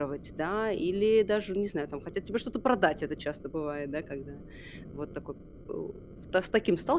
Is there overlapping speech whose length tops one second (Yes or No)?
No